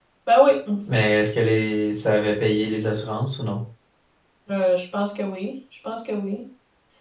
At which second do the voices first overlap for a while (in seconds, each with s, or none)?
none